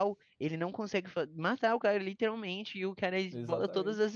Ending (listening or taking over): listening